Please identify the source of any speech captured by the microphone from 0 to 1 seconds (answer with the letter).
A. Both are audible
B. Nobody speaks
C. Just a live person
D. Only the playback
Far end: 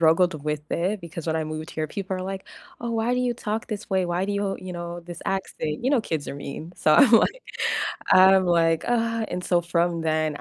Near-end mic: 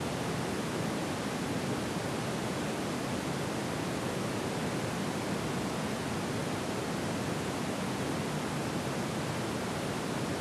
B